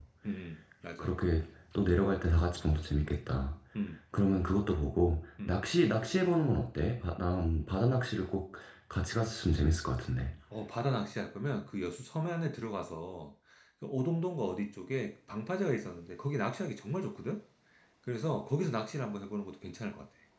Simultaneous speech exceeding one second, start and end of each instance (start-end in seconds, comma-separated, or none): none